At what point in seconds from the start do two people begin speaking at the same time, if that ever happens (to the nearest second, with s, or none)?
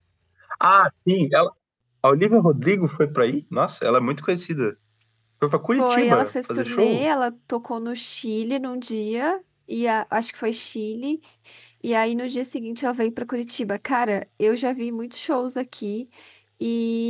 6 s